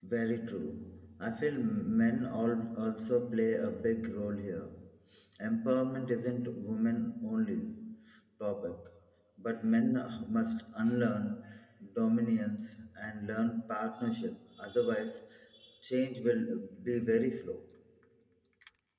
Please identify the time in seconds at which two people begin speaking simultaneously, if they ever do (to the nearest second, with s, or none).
none